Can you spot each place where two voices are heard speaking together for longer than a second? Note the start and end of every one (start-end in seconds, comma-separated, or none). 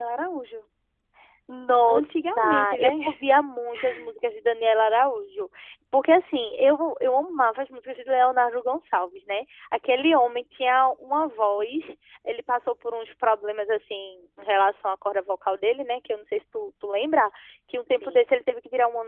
1.8-3.0